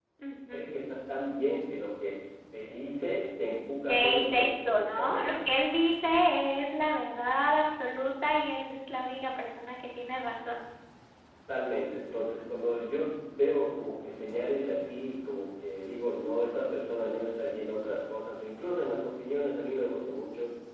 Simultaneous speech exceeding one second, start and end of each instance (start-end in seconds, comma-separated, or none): 3.9-5.3